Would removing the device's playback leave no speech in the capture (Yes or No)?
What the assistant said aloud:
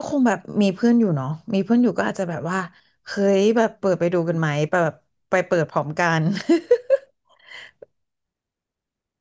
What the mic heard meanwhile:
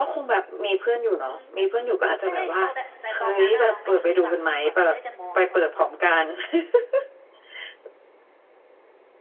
No